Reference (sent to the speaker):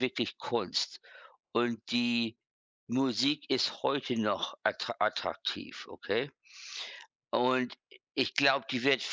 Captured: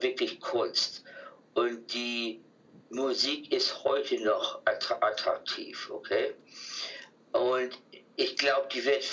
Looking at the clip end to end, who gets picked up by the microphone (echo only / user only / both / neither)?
echo only